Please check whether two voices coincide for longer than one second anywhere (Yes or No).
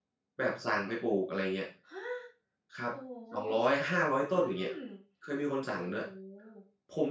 No